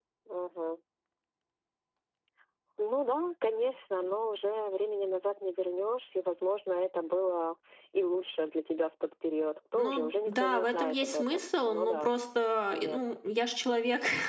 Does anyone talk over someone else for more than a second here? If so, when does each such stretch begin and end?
9.8-12.1

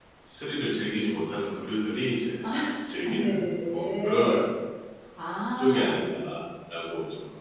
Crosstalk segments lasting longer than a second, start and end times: 2.9-4.4

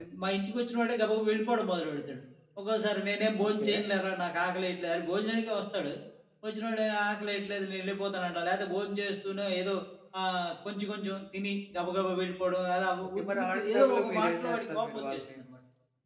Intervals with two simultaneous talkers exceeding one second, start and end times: 13.2-15.4

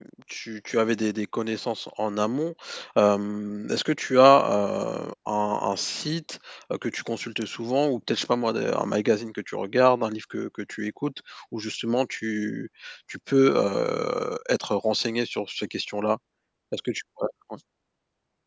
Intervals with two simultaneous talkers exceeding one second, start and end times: none

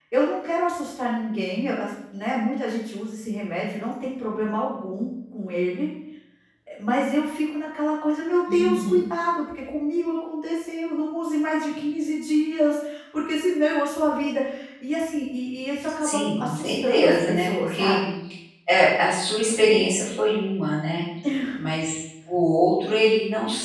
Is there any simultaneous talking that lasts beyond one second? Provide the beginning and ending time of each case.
16.0-18.0

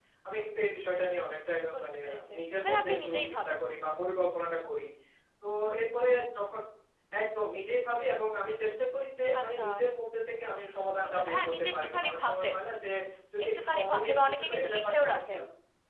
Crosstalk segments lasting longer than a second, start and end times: 1.7-3.6, 11.0-12.5, 13.4-15.4

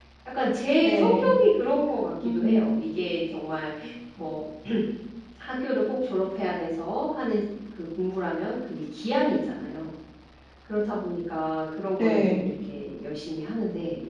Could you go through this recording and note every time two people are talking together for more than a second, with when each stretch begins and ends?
none

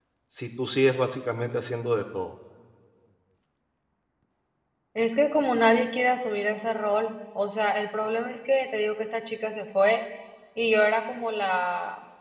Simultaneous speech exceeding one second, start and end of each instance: none

